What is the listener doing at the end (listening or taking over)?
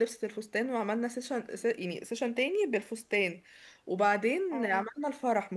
listening